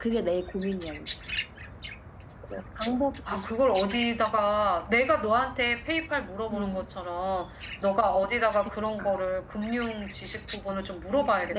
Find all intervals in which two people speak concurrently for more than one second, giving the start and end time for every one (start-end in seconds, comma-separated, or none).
none